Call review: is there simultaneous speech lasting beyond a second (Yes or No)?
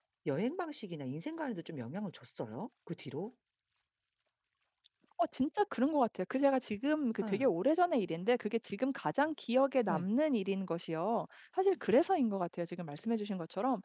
No